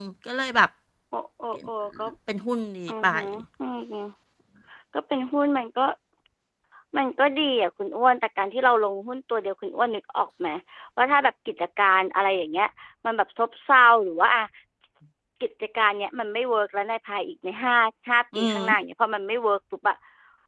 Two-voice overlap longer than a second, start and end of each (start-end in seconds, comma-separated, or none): none